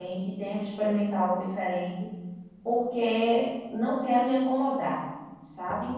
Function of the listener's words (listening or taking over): listening